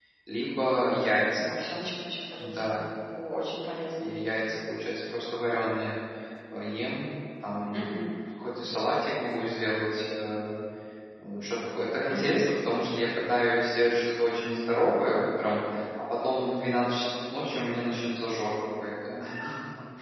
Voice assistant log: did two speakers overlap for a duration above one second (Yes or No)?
No